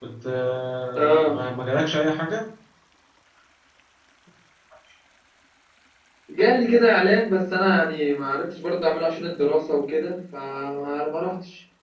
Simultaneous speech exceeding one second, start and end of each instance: none

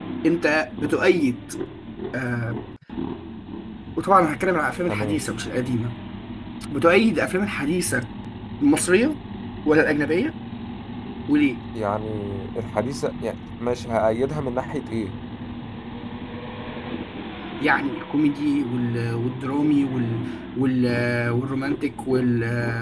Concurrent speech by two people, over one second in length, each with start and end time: none

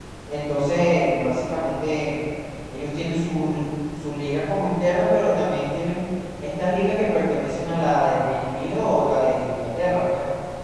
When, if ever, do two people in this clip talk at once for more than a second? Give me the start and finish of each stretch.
none

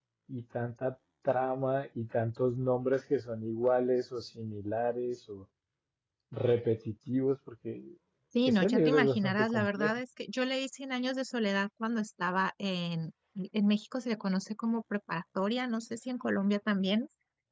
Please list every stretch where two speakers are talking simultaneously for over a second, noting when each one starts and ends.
8.5-9.9

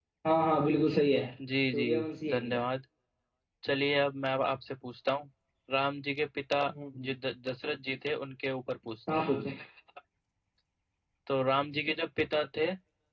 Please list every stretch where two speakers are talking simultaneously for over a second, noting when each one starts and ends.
none

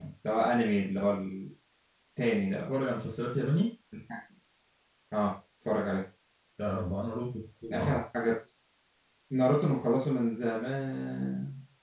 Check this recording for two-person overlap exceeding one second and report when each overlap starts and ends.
none

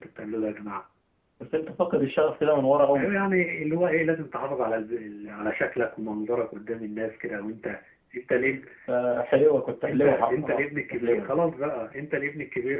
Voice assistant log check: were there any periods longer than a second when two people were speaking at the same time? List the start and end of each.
9.9-11.3

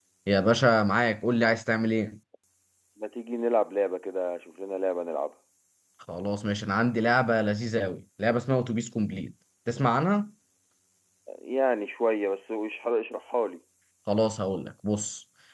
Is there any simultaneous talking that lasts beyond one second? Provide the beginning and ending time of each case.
none

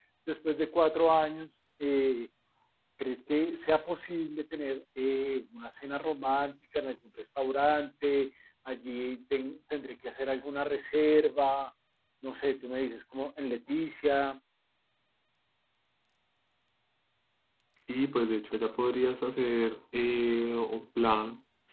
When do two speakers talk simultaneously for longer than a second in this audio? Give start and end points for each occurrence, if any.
none

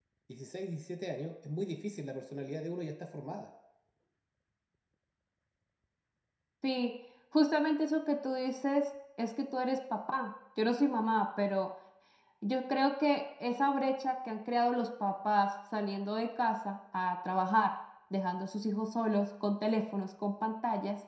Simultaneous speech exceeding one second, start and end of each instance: none

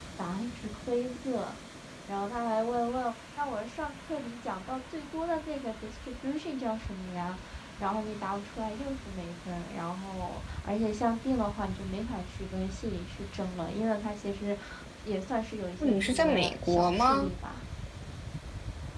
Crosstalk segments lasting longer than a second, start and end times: 15.8-17.3

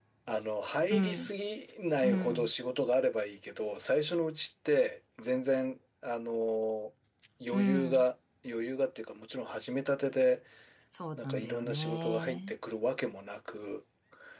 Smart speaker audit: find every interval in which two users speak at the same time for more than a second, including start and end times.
11.2-12.5

